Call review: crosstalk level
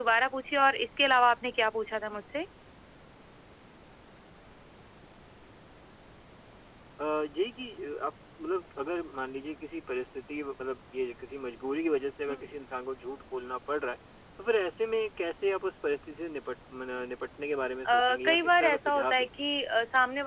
present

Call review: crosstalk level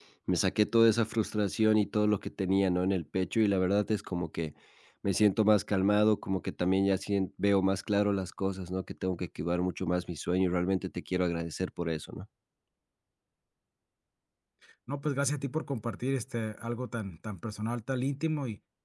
none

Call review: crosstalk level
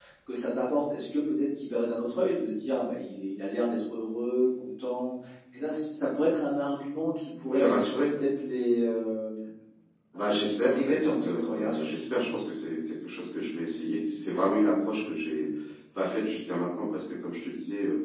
present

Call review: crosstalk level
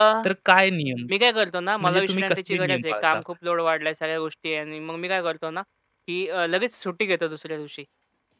present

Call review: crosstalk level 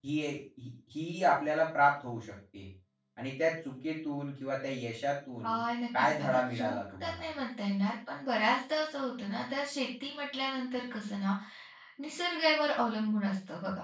present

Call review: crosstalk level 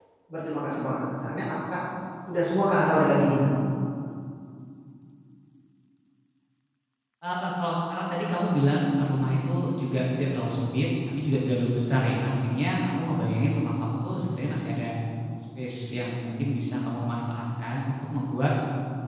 none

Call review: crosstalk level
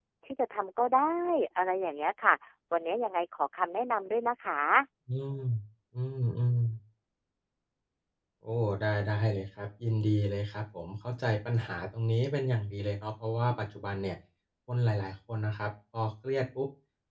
none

